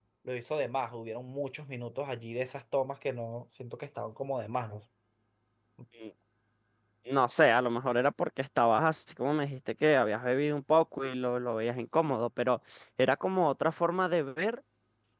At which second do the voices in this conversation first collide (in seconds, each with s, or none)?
none